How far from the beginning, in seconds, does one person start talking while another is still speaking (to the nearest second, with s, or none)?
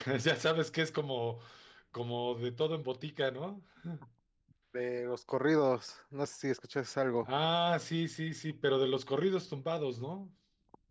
none